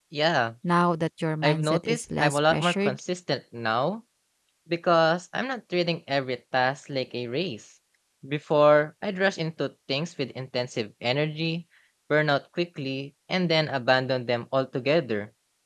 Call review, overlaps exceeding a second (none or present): present